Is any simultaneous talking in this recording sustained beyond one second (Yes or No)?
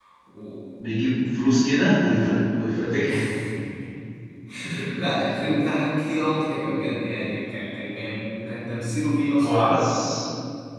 No